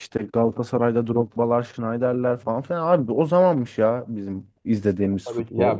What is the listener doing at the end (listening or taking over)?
taking over